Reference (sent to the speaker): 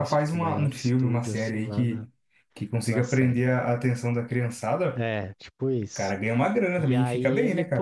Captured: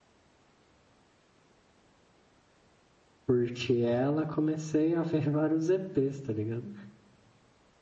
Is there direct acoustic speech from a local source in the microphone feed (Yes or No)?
Yes